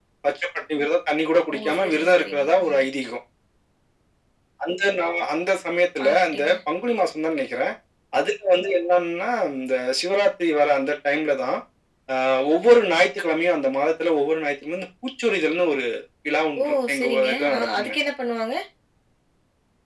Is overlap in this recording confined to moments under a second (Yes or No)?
No